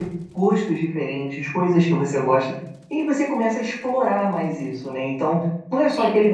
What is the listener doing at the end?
listening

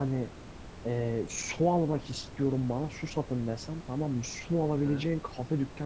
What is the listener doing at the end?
listening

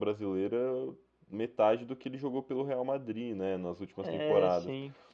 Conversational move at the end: listening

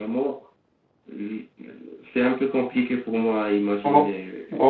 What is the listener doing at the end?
taking over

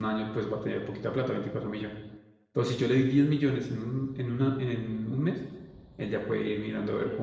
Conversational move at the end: taking over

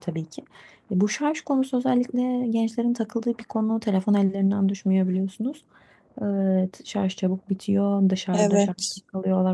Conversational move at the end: listening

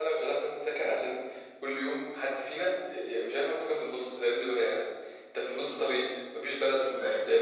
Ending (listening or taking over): listening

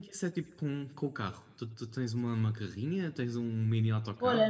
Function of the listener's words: taking over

